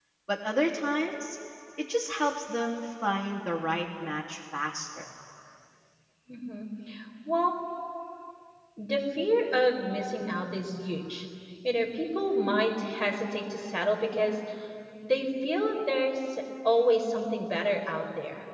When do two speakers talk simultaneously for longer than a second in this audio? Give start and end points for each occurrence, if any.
none

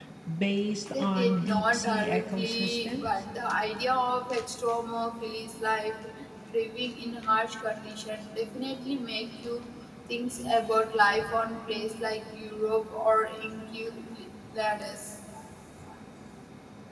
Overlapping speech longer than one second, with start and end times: 0.9-3.1

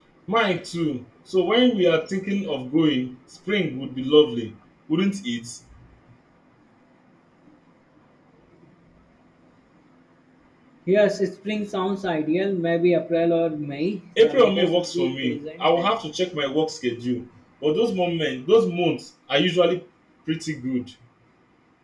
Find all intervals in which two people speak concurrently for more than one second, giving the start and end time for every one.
14.2-15.9

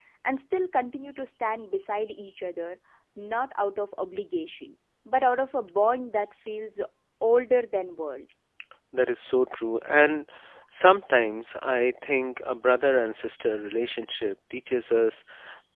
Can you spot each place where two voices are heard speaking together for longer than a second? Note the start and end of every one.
none

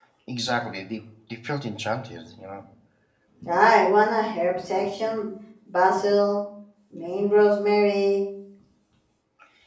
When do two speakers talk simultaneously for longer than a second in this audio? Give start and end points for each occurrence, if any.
none

